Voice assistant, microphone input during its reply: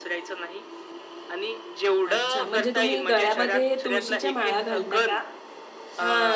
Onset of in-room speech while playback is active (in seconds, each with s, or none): 2.0 s